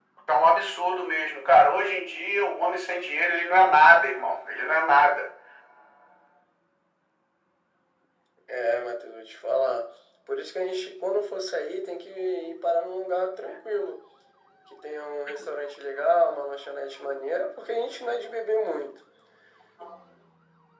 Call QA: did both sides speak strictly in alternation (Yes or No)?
Yes